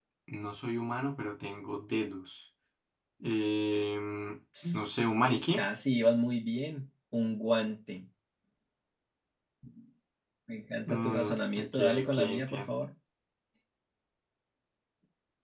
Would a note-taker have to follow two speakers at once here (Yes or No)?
Yes